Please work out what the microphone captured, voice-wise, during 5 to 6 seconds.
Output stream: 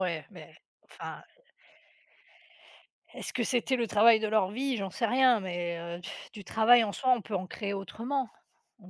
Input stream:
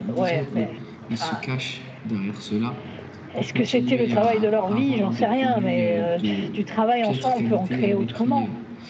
both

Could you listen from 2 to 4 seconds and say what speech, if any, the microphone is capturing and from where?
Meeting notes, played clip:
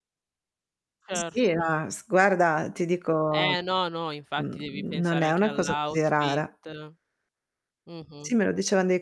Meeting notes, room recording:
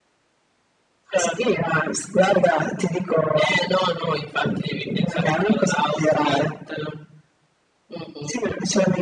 echo only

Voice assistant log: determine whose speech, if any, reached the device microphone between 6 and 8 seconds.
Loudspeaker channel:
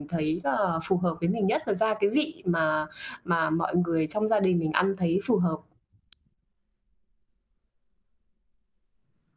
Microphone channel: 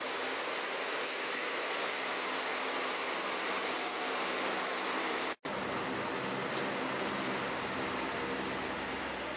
neither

